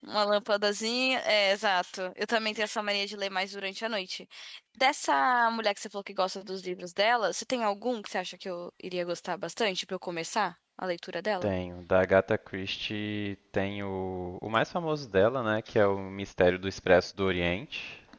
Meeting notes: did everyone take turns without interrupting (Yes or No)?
Yes